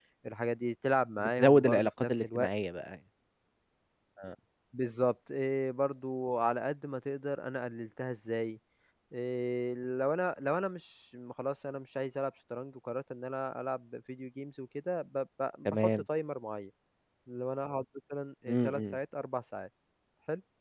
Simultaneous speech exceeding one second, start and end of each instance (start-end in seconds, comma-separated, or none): 1.2-2.5